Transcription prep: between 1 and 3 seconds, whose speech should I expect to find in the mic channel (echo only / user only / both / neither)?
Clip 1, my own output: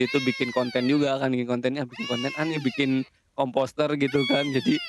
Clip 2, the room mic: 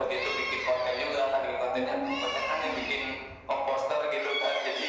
both